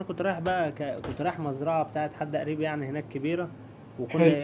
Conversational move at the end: listening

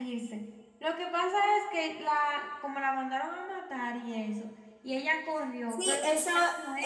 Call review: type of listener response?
taking over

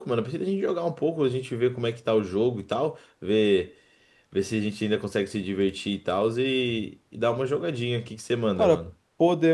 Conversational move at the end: taking over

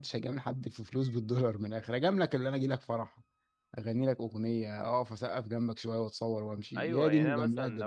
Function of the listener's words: taking over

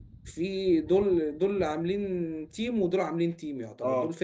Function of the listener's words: listening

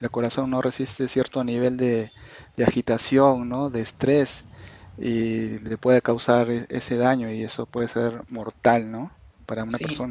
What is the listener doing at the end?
taking over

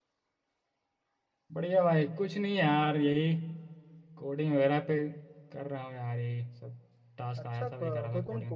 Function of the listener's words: taking over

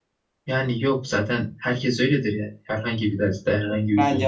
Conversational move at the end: taking over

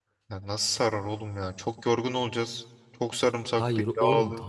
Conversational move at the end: taking over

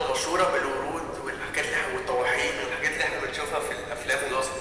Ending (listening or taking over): taking over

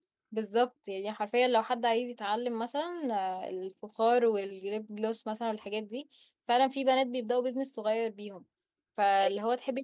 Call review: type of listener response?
listening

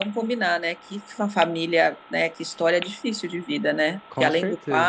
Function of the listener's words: listening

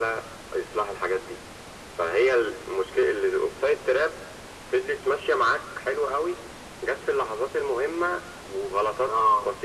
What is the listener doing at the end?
listening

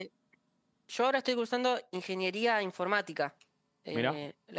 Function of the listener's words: listening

